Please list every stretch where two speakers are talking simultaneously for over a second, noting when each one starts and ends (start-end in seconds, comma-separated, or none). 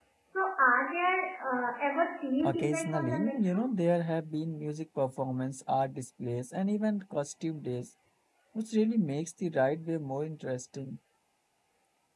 2.4-3.7